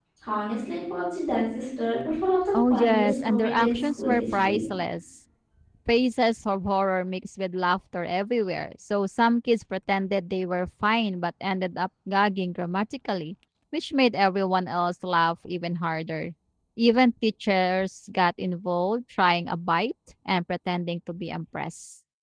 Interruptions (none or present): present